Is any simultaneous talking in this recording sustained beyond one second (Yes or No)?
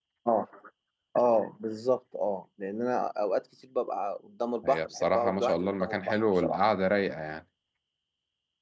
Yes